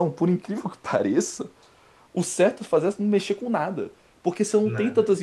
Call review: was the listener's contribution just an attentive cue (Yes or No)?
Yes